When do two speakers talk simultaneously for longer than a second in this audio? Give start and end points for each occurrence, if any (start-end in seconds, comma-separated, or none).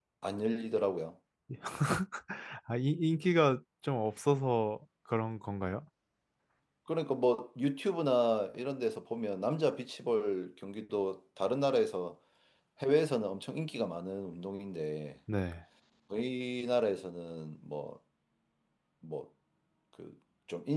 none